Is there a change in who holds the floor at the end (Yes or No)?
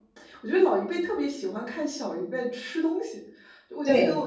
No